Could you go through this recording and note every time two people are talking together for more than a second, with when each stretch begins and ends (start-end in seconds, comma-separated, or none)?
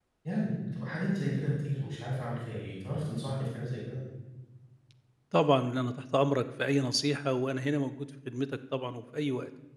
none